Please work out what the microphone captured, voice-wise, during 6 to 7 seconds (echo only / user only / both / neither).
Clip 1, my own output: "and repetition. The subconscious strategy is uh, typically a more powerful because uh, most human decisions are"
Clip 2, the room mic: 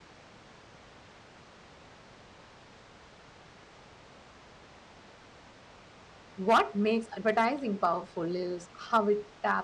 user only